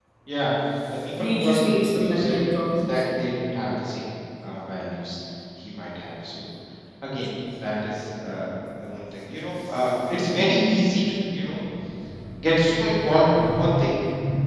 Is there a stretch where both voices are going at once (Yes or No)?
Yes